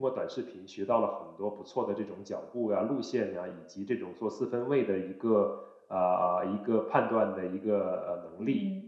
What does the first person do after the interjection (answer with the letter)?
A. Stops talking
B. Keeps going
A